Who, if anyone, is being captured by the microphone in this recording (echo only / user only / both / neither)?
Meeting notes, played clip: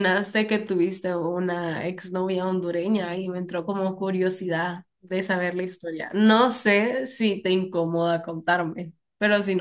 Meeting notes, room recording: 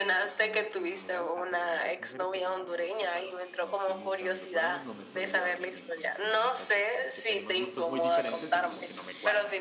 both